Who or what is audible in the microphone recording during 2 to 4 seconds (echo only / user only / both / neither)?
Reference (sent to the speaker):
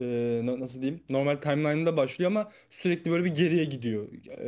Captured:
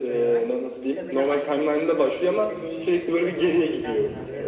both